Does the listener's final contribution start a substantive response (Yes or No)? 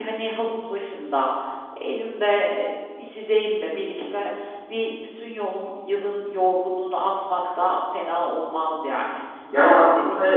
Yes